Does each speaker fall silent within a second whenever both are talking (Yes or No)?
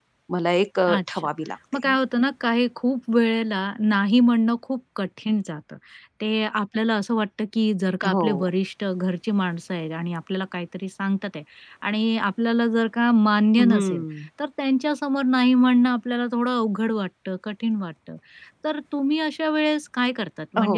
Yes